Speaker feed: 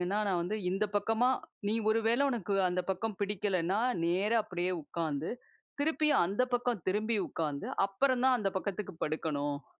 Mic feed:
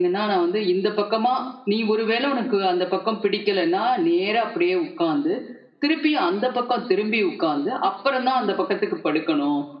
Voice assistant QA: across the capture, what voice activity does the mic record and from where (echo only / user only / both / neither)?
echo only